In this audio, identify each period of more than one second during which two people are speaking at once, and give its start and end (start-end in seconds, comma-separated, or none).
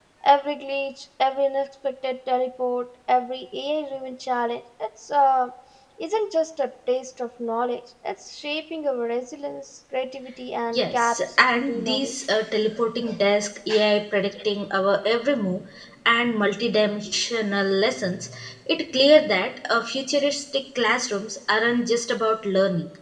10.7-12.1